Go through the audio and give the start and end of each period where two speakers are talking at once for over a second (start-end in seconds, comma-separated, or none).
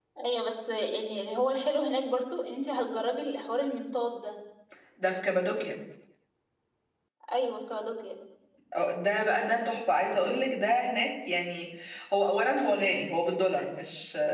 none